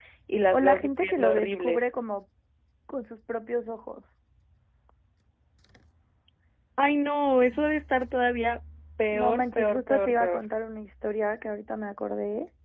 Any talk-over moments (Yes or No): Yes